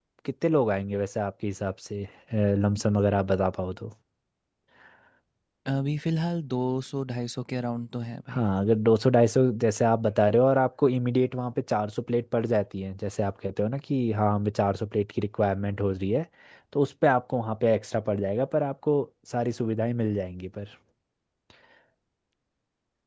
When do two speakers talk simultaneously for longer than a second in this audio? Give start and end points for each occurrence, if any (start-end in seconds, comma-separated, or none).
none